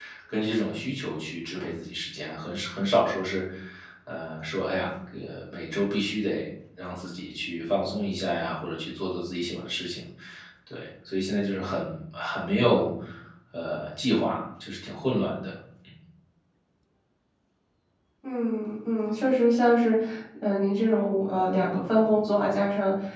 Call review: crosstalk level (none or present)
none